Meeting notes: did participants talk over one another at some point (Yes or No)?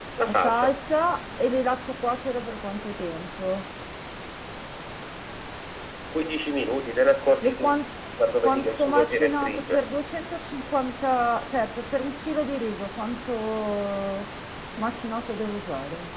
Yes